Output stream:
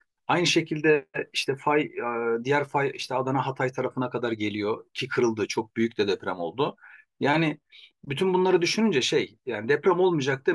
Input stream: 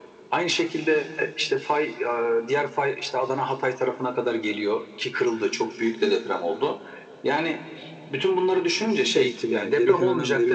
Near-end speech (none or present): present